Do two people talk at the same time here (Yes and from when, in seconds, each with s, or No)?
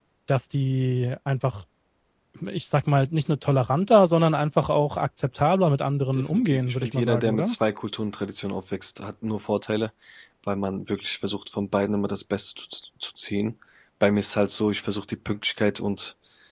Yes, from 6.2 s